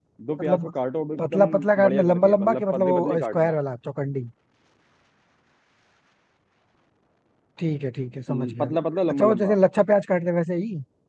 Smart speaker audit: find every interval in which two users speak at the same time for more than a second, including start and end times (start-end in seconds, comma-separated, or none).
1.2-3.5